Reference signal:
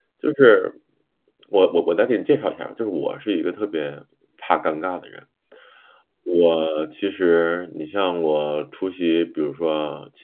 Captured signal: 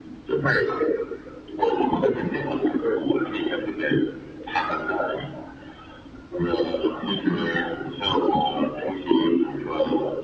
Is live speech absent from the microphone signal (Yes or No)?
Yes